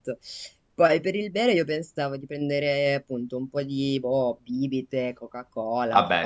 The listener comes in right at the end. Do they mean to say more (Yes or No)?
No